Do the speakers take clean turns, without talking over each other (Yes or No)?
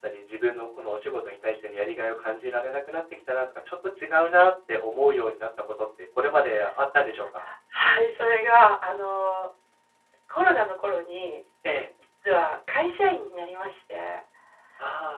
Yes